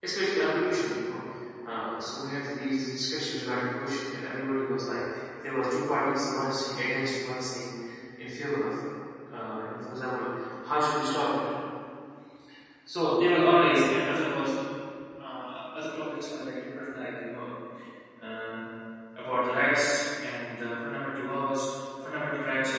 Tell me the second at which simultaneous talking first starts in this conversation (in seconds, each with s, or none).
none